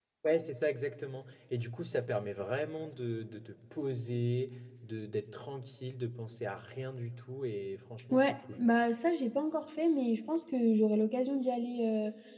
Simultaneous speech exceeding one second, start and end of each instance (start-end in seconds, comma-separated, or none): none